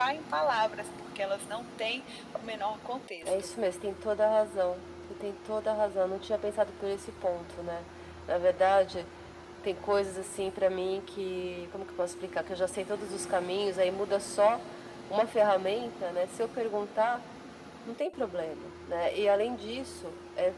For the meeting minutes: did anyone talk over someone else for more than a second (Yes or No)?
No